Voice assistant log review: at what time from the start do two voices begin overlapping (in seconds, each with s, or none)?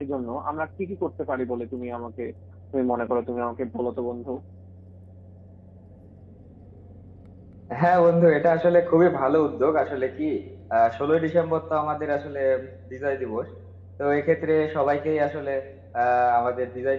none